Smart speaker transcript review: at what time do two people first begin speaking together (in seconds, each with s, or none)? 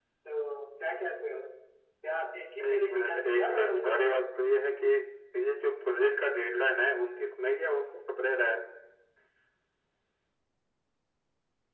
2.7 s